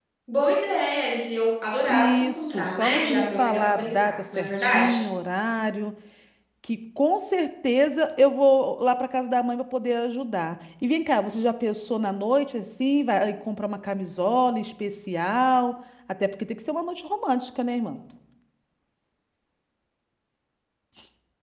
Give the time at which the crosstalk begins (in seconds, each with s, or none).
1.8 s